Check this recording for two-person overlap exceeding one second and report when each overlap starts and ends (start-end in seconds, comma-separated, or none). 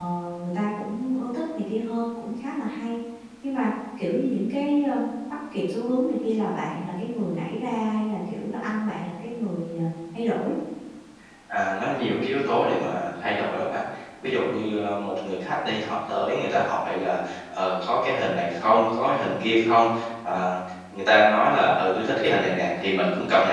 none